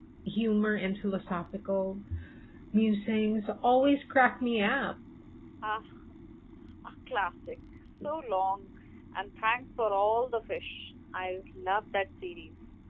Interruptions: none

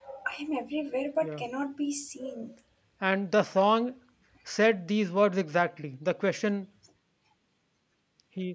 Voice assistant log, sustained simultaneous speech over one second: none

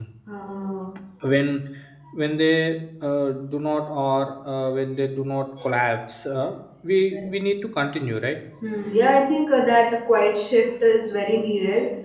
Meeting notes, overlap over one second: none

